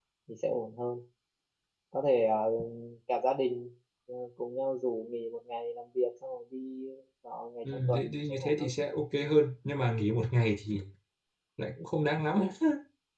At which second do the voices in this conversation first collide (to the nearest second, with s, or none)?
8 s